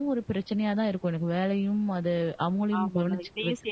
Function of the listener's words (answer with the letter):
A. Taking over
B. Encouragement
A